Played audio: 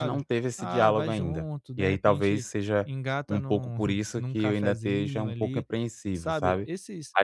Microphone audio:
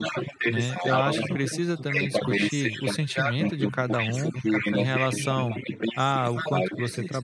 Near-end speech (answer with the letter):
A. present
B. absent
A